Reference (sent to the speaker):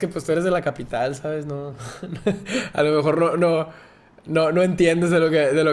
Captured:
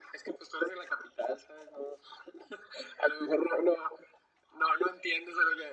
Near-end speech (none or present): none